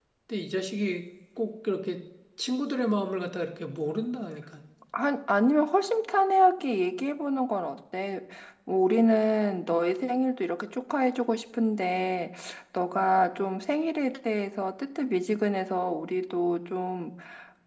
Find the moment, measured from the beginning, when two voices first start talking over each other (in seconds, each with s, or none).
none